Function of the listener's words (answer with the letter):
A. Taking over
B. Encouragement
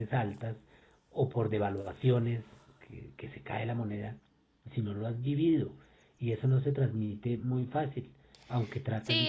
A